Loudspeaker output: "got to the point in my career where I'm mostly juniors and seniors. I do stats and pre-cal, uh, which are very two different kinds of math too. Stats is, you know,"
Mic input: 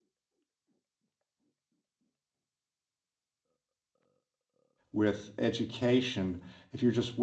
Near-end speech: present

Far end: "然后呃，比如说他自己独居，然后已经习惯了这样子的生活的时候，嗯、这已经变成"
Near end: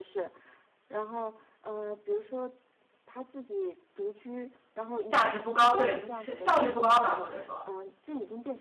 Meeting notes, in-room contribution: present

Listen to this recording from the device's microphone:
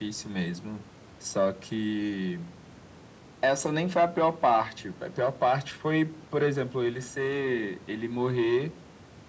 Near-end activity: none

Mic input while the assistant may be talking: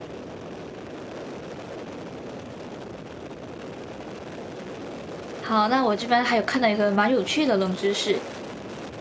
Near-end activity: present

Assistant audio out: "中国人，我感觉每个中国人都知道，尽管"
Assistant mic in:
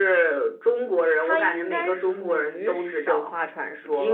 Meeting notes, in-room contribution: present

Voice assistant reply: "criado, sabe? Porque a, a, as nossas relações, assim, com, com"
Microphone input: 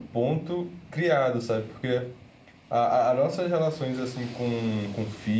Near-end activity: none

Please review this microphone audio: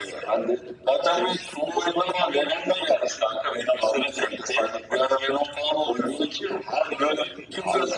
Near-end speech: none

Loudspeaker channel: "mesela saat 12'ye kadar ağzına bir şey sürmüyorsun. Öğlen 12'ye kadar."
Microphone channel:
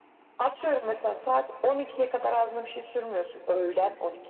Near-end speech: none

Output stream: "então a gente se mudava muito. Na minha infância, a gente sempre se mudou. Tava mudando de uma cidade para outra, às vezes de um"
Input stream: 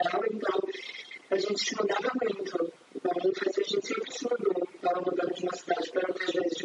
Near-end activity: none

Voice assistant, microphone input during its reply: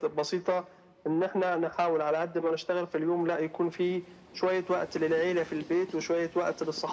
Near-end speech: none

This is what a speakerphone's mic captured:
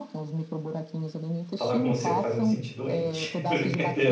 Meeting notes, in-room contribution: present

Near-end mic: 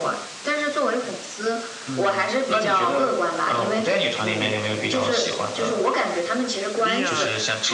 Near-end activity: present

